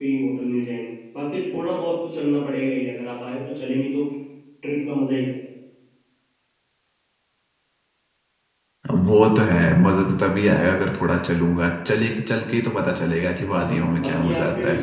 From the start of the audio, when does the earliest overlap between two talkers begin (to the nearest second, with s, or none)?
13 s